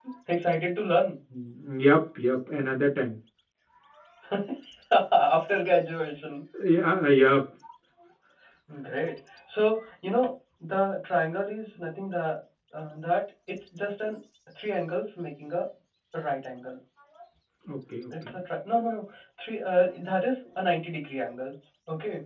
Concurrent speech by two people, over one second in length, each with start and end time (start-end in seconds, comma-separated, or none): none